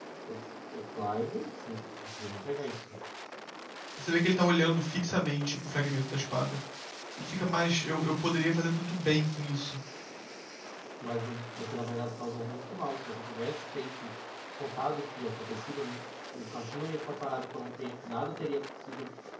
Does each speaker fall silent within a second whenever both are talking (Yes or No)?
Yes